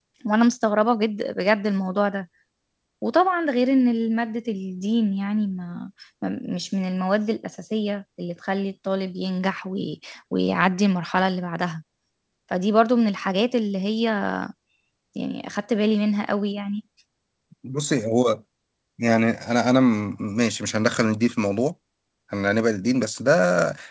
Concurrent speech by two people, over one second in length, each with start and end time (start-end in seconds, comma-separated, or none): none